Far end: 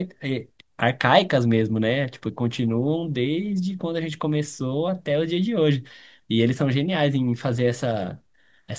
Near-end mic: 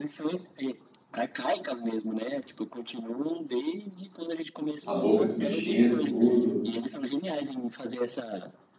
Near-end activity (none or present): present